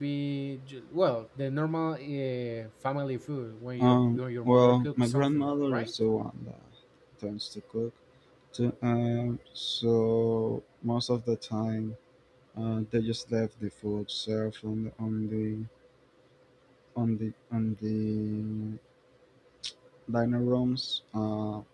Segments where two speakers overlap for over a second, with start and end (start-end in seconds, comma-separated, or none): 3.8-5.9